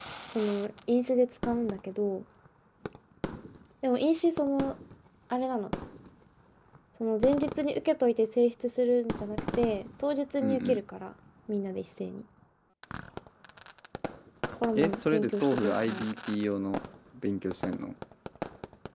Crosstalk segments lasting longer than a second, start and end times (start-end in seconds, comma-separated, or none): 14.8-16.0